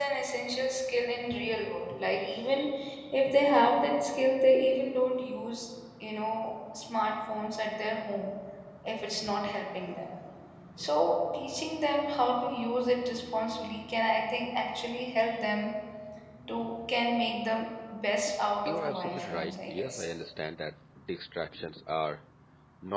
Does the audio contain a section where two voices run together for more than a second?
Yes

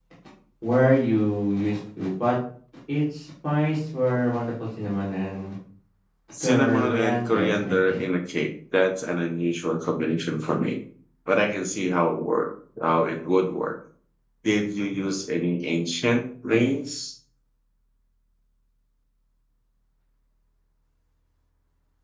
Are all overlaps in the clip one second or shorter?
No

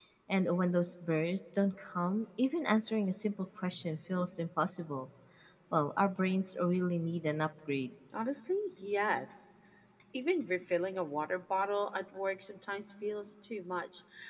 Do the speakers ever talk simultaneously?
No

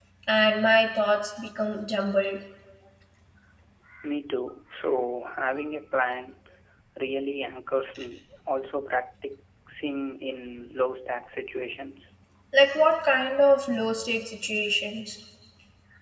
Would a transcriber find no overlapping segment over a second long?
Yes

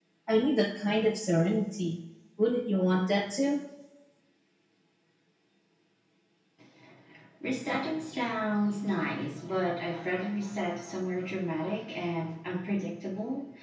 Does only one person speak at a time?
Yes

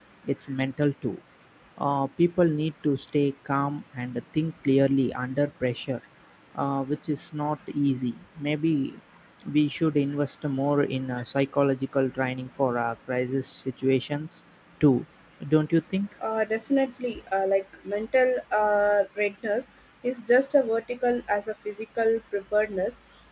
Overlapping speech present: No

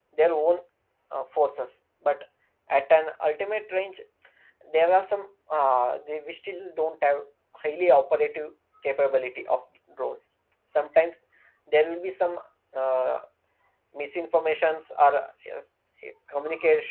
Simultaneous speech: No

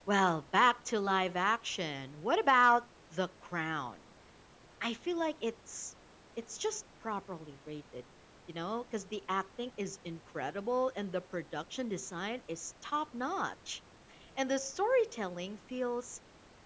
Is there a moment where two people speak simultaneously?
No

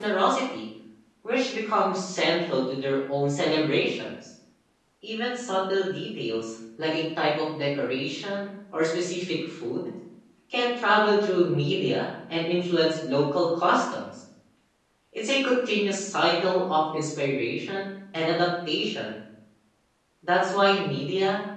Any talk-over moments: No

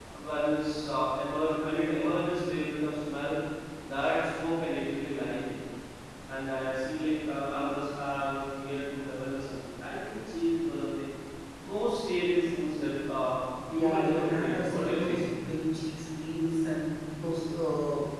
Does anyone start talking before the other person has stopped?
Yes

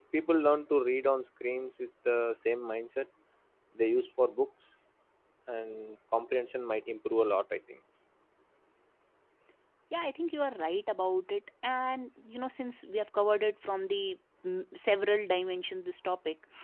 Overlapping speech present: No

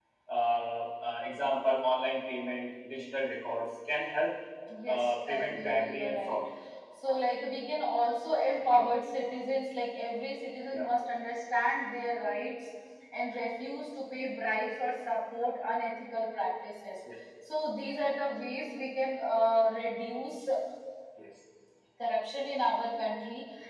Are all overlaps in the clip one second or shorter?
No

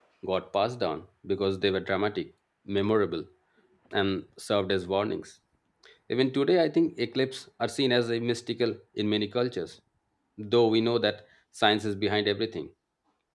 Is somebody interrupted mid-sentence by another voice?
No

